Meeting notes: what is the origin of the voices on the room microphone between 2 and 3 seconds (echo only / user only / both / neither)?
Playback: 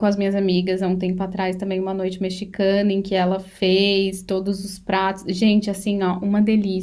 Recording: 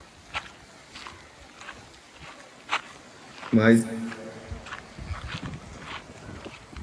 neither